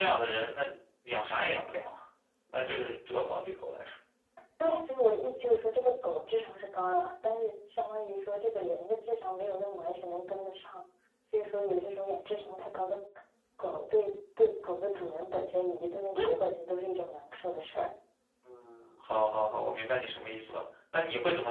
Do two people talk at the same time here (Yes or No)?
No